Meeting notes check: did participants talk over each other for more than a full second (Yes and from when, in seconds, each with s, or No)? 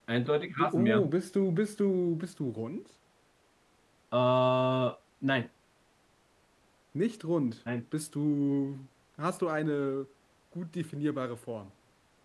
No